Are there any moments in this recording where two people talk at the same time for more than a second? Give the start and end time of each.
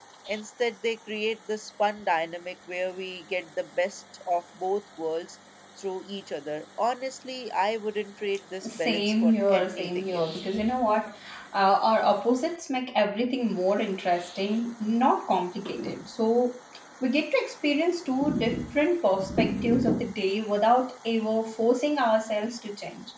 8.7-10.3

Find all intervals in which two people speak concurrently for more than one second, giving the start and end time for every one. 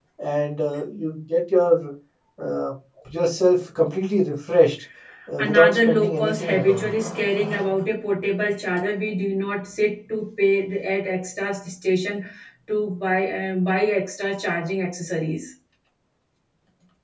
5.4-6.9

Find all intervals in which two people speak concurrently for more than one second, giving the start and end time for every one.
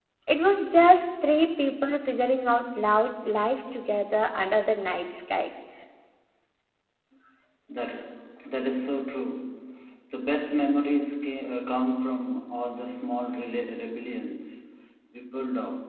none

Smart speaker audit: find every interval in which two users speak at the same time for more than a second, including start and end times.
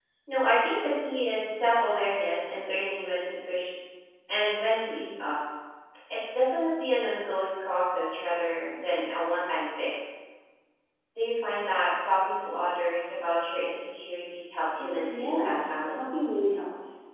14.8-16.2

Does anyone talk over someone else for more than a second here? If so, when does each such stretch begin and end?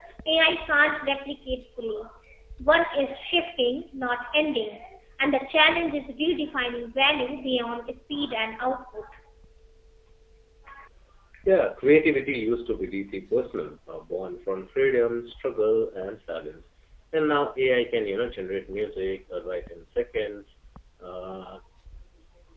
none

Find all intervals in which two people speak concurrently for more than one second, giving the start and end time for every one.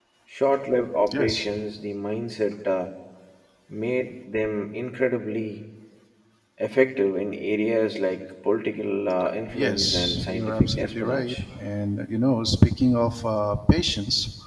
9.5-11.4

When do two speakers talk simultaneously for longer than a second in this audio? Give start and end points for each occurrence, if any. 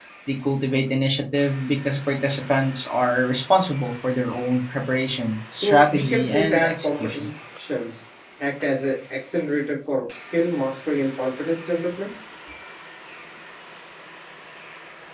5.5-7.3

